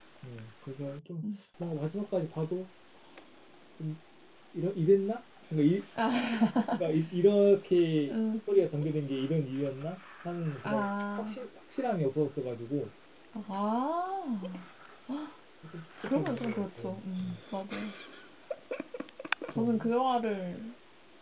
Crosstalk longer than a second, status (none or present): present